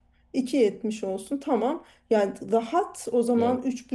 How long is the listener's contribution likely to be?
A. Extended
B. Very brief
B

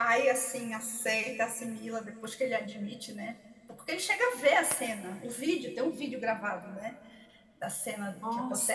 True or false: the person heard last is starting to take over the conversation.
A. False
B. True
A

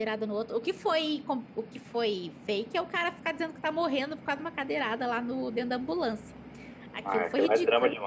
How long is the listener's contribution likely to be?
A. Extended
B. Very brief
A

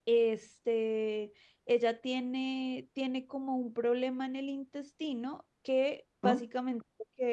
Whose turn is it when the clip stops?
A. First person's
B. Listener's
A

